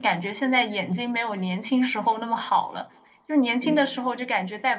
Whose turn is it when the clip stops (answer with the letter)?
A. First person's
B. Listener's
A